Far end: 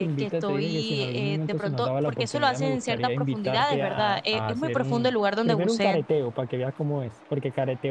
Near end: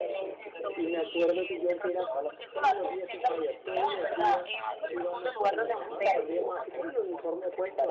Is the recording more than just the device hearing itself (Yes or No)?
Yes